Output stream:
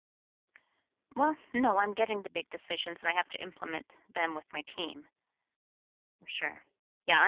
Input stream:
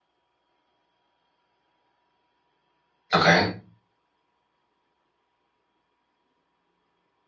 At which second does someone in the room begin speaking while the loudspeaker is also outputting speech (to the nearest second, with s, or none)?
3 s